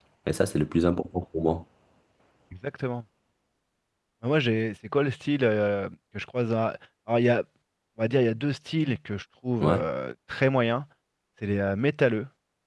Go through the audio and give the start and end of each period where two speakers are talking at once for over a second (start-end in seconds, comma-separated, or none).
none